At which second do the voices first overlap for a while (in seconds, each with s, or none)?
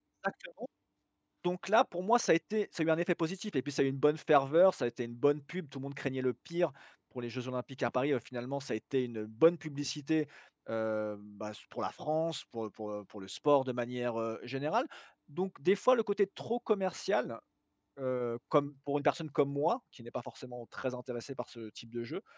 none